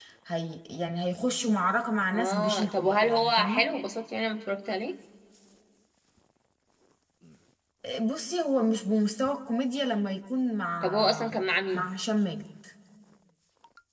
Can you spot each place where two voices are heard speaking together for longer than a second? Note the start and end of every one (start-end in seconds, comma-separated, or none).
2.1-3.6